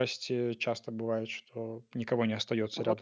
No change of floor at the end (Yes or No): No